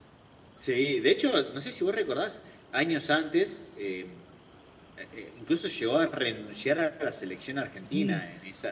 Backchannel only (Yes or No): Yes